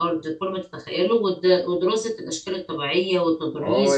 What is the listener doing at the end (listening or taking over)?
taking over